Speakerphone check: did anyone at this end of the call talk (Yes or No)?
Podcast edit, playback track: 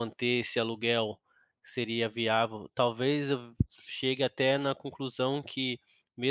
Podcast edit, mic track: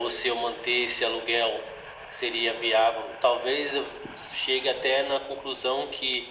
No